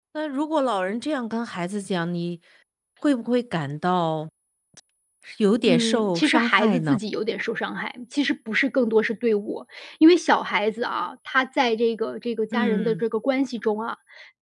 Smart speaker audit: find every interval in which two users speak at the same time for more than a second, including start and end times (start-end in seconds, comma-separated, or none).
5.7-7.0